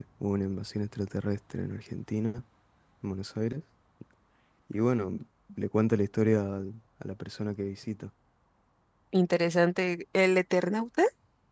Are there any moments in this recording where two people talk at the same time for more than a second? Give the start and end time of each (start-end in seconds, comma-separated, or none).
none